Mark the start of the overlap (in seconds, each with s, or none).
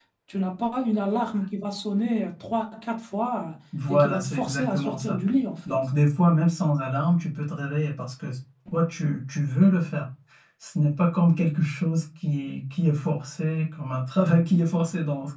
3.9 s